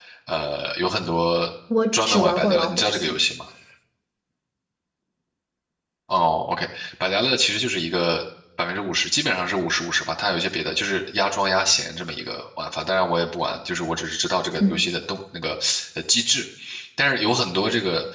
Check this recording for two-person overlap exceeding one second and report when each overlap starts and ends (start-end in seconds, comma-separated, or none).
1.9-3.2